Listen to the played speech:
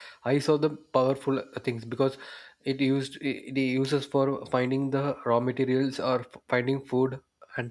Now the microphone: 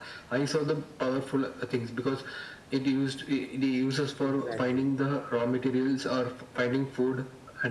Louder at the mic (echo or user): echo